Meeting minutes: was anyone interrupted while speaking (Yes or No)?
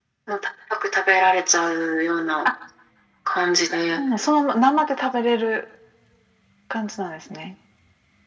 No